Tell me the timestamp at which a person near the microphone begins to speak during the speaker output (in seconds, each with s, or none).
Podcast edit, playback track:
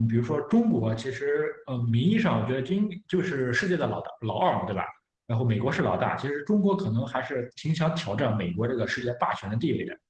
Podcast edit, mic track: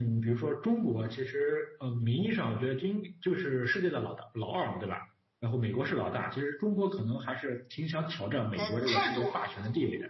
8.5 s